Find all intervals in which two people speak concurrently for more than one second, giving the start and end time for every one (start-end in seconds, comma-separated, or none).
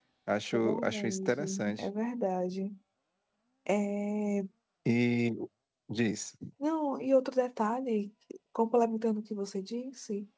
0.5-1.9